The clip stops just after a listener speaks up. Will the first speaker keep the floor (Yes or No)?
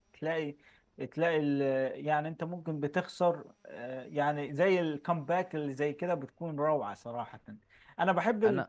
Yes